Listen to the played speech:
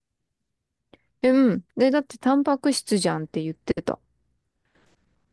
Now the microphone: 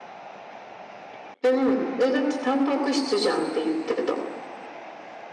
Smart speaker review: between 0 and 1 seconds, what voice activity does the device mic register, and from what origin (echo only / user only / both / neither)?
neither